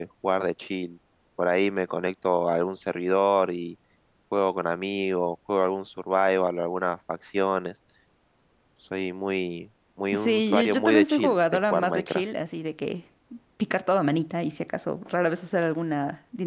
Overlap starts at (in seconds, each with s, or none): 10.1 s